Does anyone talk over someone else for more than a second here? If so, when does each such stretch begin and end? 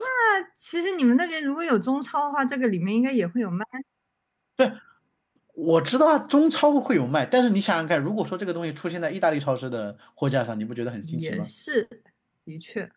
none

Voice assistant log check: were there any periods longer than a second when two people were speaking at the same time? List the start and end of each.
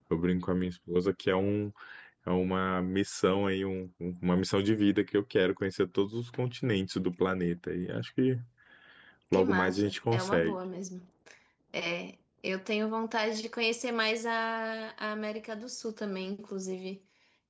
9.3-10.6

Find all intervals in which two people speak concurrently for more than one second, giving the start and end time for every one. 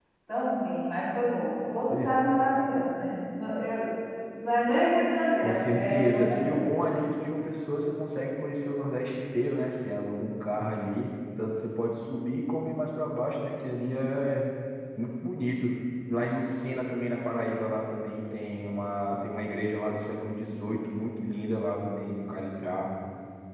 5.4-6.7

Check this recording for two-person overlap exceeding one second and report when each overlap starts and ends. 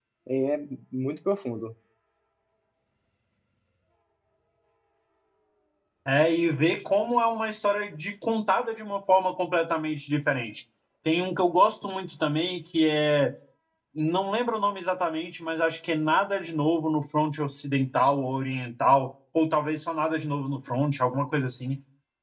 none

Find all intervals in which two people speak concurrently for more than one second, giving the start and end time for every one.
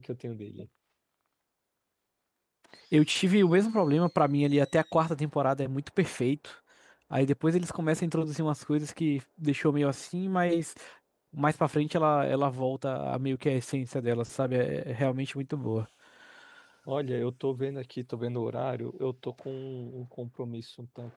none

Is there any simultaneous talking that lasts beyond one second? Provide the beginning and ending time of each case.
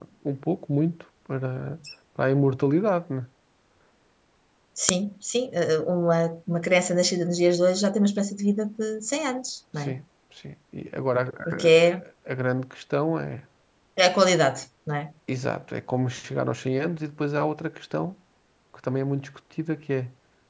none

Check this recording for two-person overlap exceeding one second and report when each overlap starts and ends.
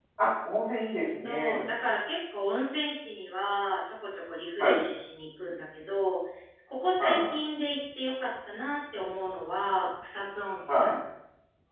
none

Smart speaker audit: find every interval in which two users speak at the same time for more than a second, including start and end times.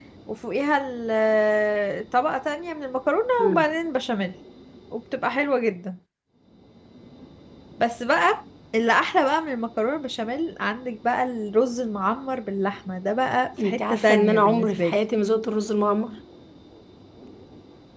13.6-15.0

